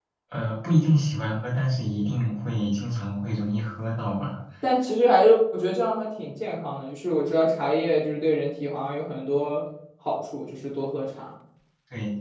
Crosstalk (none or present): none